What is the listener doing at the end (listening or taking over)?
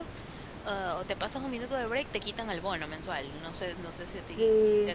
taking over